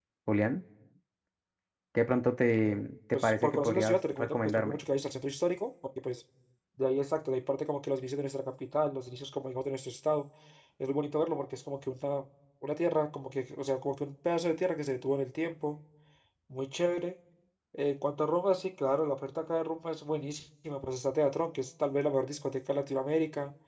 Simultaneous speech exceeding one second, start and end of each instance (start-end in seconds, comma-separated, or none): 3.1-4.8